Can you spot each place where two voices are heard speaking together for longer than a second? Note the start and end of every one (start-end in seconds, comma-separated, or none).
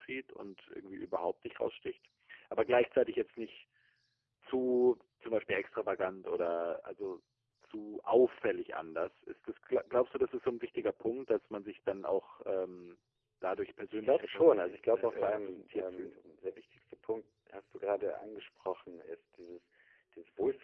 13.9-16.1